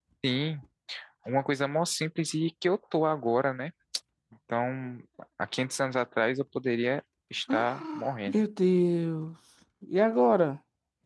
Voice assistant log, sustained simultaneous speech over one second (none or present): none